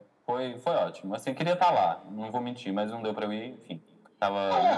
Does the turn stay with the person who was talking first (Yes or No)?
No